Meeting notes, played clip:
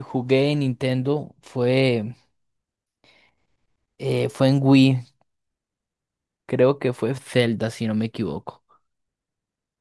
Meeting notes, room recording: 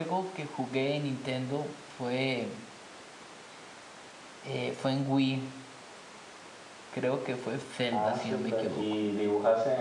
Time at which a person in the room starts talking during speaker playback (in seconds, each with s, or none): 7.9 s